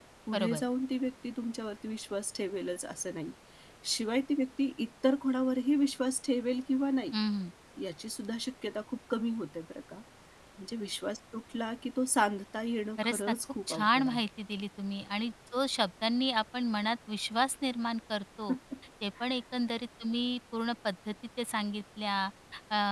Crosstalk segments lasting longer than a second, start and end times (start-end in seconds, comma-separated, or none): 13.0-14.2